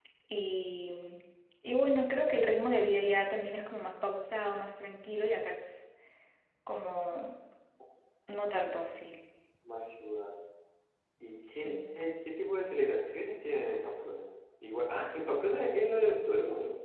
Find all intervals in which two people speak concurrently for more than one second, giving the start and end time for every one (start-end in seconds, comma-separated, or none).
none